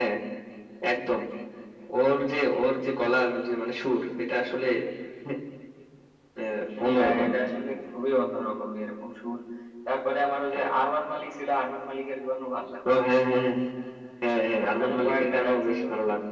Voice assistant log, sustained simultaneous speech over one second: present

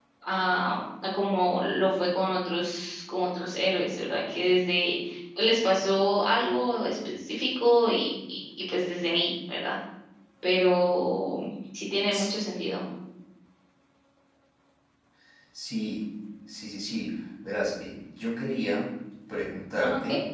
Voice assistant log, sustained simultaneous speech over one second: none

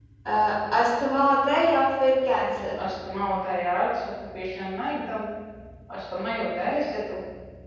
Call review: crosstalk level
none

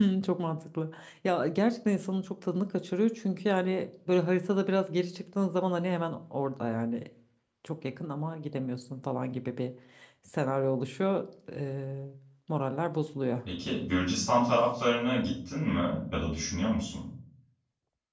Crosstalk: none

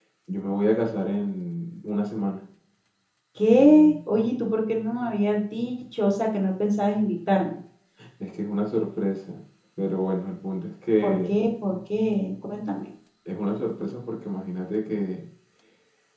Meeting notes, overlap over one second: none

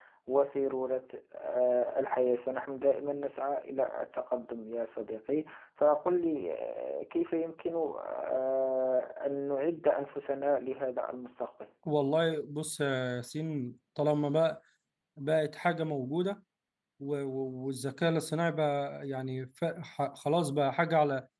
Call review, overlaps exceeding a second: none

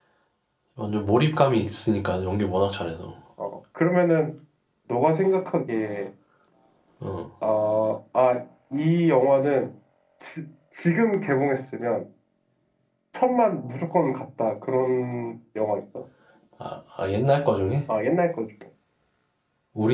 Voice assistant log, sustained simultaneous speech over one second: none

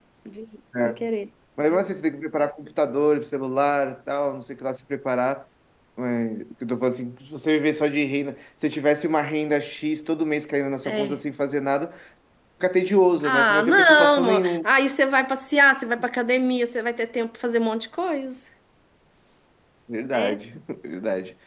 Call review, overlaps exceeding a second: present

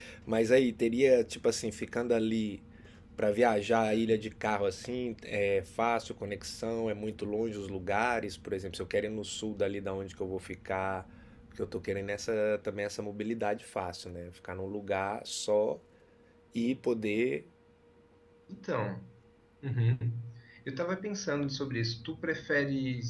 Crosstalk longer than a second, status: none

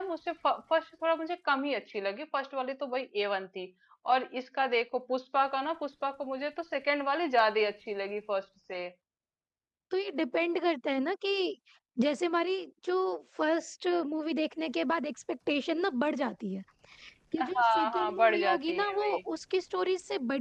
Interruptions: present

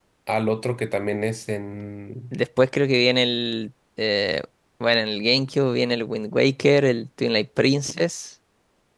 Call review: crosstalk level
none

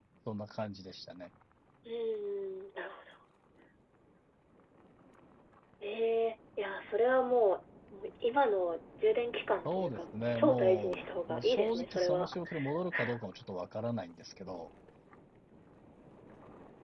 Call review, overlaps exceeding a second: present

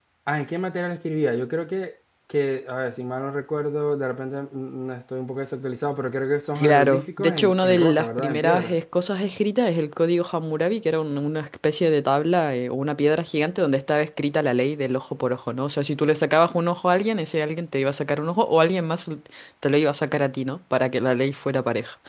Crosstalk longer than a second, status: present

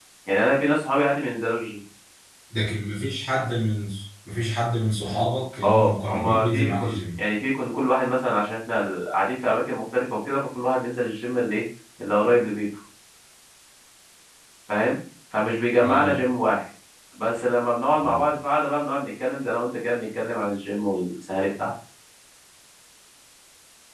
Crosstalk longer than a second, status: present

